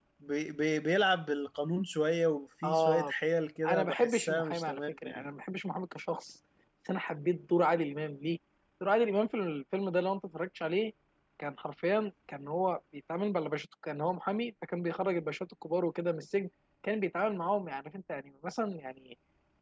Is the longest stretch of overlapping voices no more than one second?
No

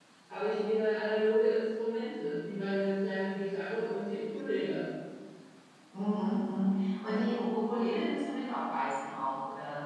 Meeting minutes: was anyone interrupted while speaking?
No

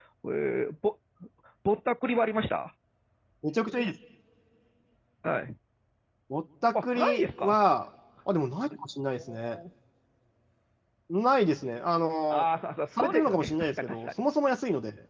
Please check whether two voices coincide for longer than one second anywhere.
Yes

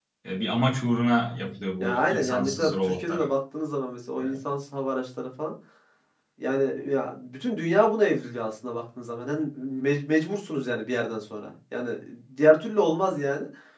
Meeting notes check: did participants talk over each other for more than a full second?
Yes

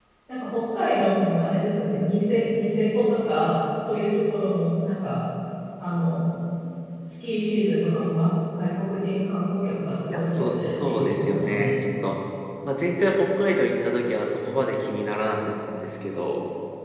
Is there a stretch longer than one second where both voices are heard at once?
Yes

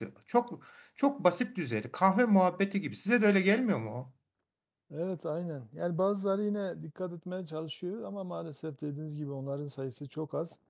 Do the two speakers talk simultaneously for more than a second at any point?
No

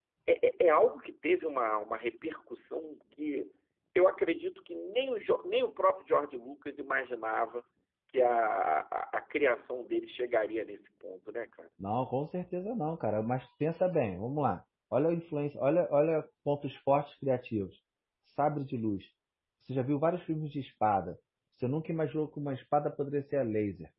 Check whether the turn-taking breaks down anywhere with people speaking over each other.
No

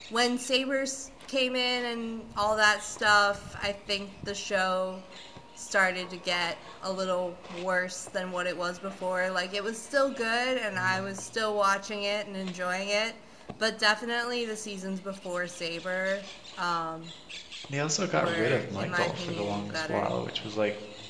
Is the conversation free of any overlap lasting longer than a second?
No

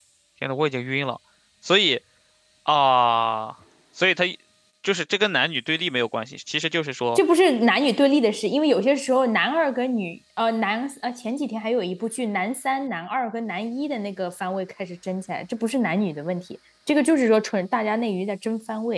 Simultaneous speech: No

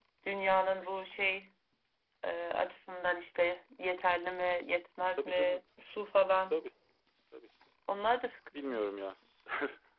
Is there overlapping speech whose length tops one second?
No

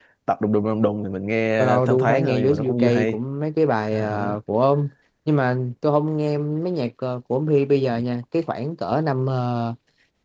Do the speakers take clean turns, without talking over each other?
No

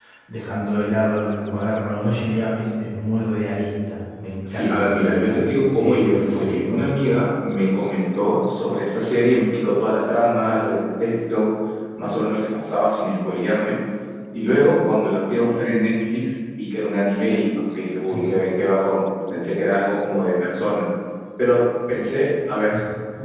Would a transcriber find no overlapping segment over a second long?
No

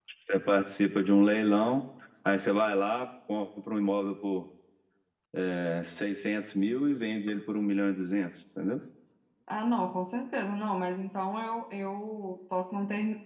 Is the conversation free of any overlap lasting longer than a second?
Yes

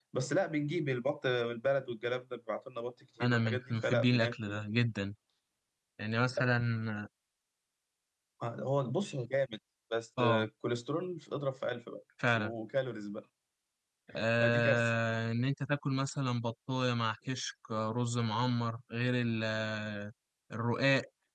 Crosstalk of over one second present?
Yes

